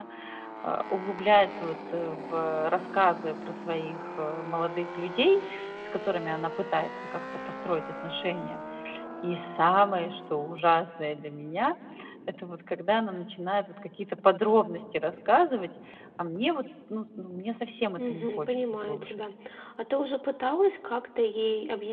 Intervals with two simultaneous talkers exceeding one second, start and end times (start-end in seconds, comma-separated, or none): 18.0-19.2